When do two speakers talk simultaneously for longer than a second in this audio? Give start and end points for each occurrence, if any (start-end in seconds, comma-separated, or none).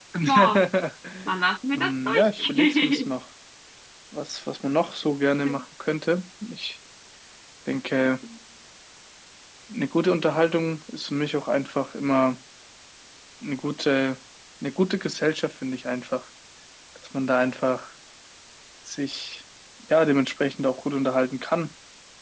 1.7-3.1